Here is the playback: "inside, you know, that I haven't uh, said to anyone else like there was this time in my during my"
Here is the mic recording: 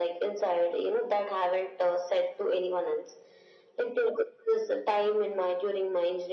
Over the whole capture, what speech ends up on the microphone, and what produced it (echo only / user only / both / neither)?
echo only